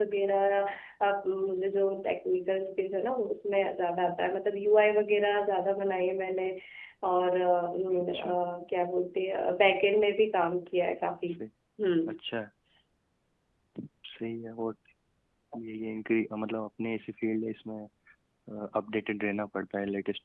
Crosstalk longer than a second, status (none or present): none